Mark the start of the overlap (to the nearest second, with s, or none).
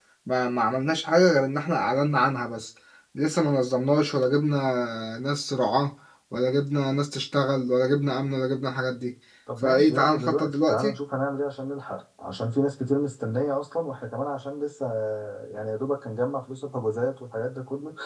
9 s